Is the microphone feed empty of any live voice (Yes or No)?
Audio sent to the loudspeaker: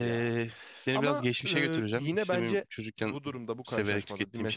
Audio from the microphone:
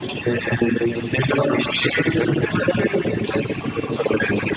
Yes